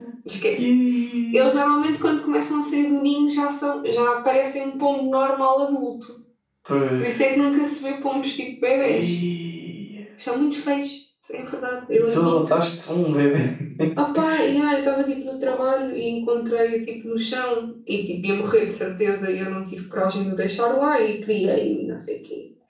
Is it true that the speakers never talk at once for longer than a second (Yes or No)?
Yes